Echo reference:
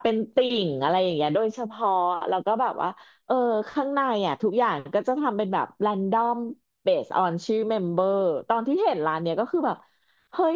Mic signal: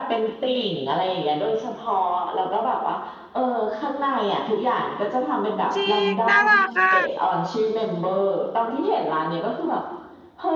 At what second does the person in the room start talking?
5.8 s

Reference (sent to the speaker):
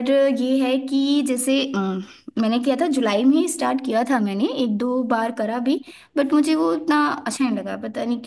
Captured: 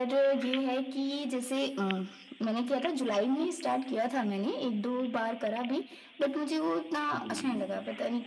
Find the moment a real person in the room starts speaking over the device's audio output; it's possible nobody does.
7.1 s

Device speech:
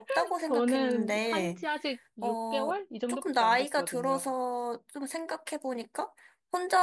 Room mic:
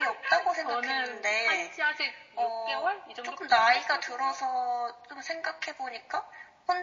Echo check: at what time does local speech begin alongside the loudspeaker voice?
none

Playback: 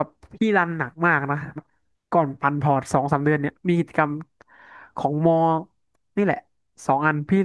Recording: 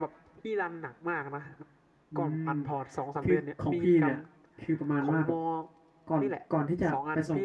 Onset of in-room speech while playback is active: 2.1 s

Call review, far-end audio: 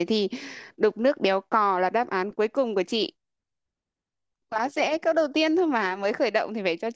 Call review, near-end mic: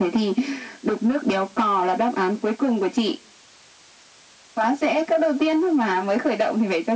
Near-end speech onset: none

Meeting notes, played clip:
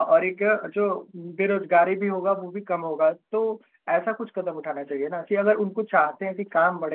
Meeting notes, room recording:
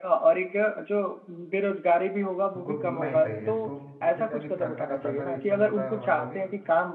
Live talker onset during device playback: 2.6 s

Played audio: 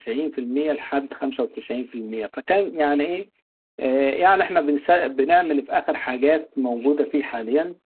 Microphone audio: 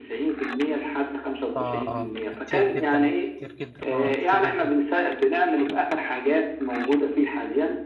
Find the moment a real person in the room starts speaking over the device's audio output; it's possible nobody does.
1.6 s

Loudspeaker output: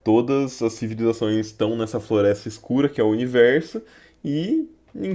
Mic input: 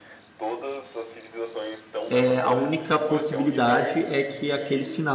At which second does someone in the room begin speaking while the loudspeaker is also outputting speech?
2.1 s

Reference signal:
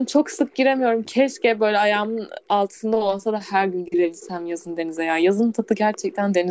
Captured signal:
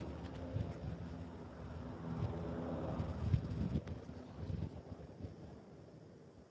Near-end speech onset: none

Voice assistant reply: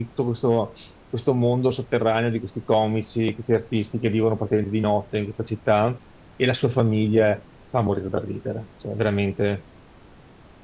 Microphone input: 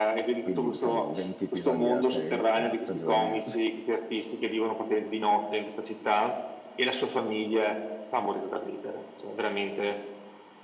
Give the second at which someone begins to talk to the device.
0.4 s

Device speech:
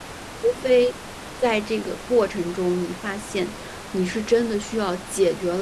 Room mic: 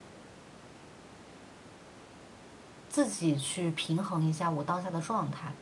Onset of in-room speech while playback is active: 2.9 s

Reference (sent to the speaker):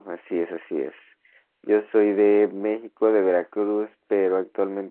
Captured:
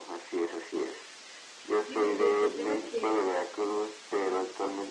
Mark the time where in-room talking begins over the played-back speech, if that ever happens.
1.7 s

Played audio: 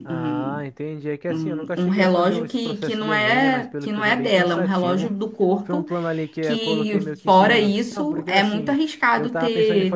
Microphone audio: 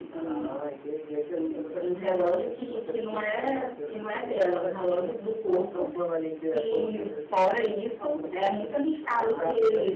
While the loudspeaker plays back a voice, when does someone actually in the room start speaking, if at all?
9.0 s

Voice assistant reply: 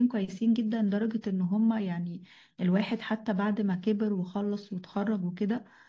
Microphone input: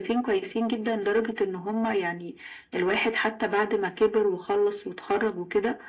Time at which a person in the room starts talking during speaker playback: none

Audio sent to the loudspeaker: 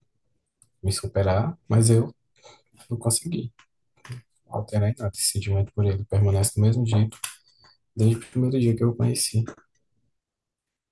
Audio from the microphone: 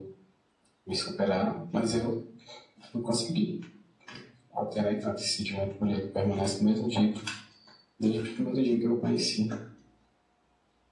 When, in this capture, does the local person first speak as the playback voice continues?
none

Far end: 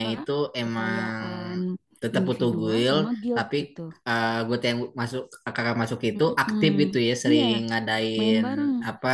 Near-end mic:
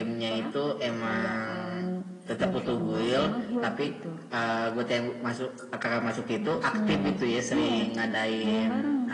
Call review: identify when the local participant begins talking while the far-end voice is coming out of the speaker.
none

